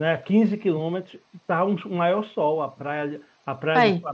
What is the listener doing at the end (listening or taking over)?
listening